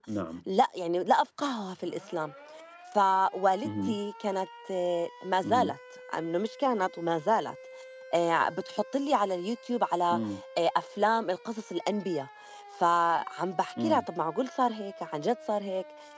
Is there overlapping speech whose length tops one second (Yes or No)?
No